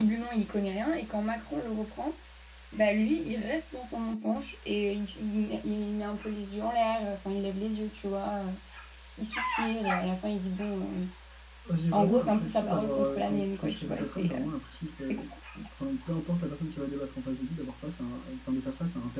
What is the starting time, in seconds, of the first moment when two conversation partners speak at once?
11.9 s

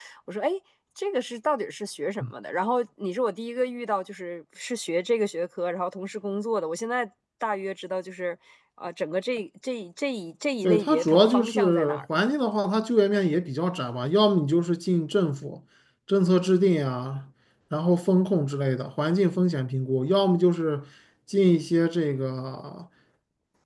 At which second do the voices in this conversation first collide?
10.6 s

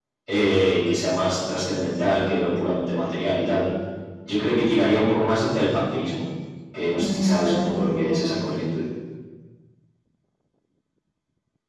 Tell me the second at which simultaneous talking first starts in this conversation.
7.0 s

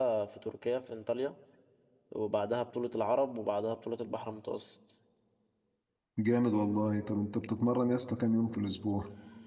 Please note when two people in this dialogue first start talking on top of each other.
none

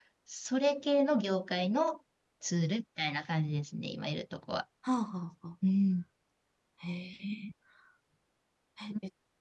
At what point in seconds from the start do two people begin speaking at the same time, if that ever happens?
none

